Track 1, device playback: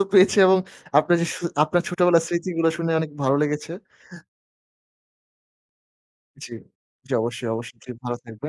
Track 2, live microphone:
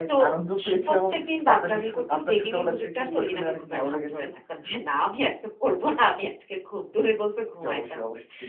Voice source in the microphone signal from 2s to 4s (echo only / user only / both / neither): both